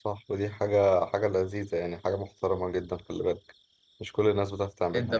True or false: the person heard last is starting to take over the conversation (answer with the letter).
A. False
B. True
B